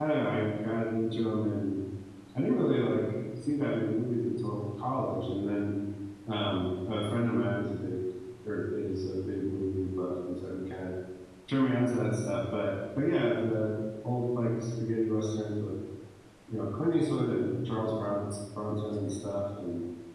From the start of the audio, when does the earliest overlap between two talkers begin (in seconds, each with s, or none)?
none